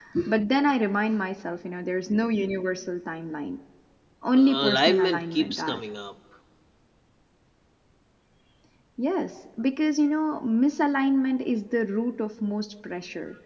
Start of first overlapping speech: 4.3 s

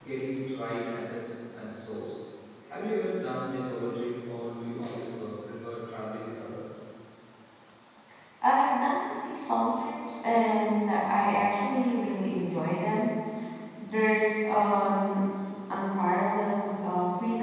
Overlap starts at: none

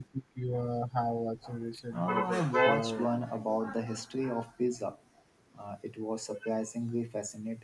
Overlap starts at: 1.9 s

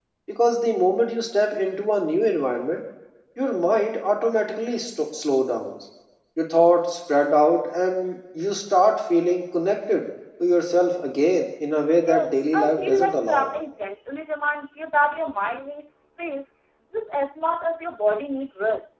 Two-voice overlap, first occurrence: 12.1 s

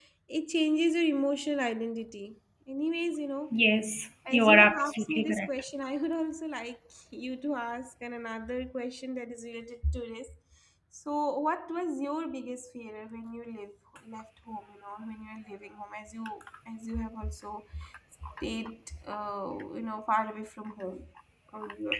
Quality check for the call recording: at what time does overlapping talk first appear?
4.3 s

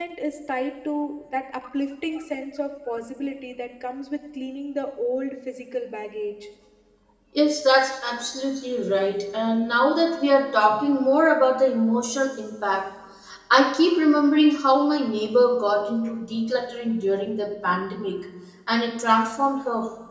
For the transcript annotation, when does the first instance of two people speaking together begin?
none

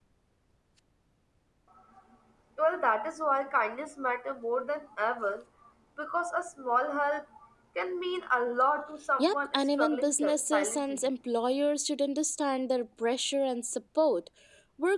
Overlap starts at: 9.2 s

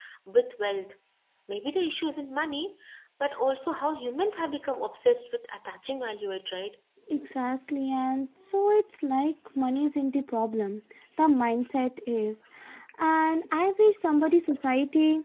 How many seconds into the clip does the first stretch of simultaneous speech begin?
none

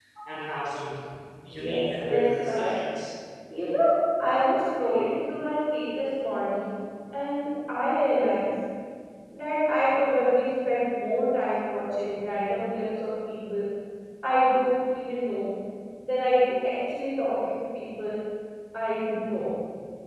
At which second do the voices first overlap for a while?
1.5 s

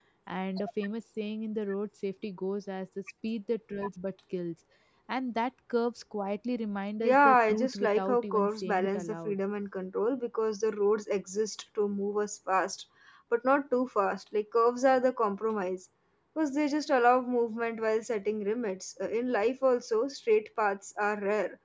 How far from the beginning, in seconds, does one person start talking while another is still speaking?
7.0 s

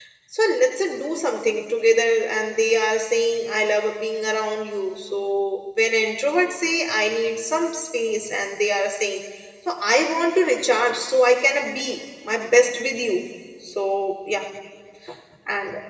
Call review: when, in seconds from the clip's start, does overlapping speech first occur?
none

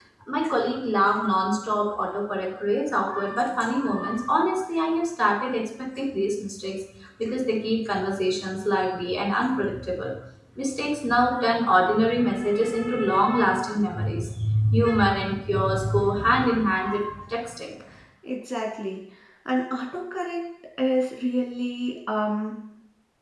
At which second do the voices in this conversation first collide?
none

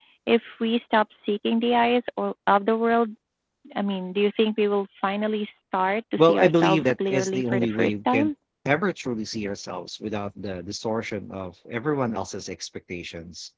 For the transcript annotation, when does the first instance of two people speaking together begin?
6.2 s

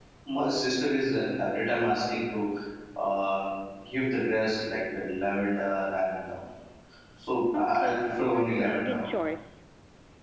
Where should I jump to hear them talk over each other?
7.5 s

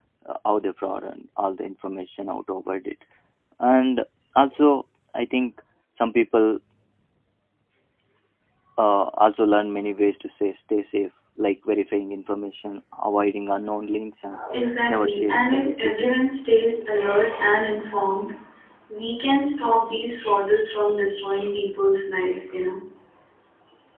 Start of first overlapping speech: 14.9 s

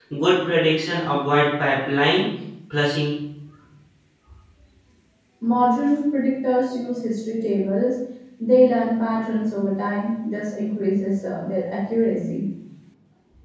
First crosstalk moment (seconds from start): none

